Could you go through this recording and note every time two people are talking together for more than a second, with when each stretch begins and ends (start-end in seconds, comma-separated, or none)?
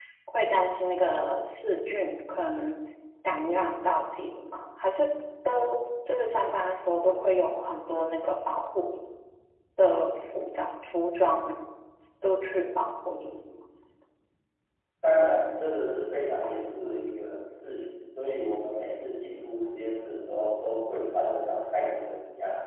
none